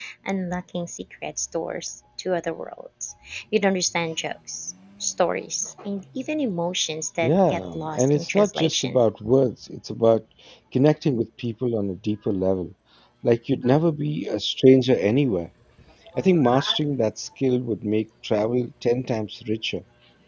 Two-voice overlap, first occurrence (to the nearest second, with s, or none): 7 s